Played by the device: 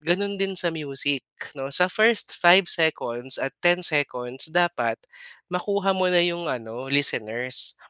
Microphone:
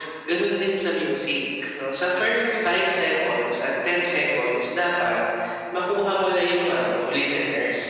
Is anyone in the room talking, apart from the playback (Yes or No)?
No